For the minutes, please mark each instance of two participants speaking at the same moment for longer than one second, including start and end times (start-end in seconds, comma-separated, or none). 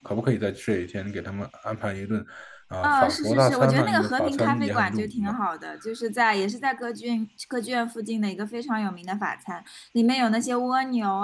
2.8-5.3